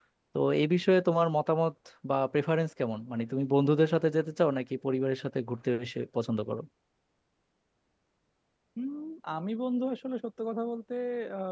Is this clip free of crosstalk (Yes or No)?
Yes